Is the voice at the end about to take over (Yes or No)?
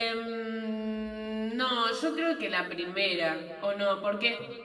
No